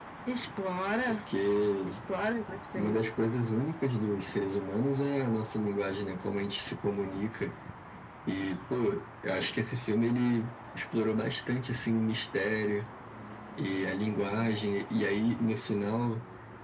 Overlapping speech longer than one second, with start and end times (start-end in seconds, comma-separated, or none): none